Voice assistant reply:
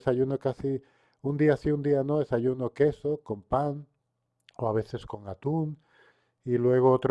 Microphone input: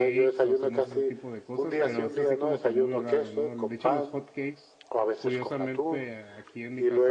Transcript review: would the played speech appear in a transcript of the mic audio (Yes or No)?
Yes